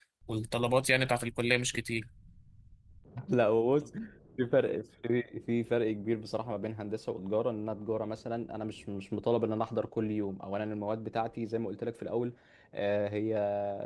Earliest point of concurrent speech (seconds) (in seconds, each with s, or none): none